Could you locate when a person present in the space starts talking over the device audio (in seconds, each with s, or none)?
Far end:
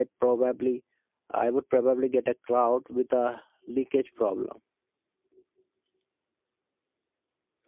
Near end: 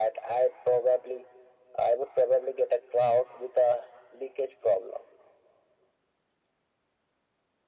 none